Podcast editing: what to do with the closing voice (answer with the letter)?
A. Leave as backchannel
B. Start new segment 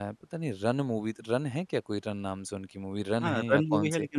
B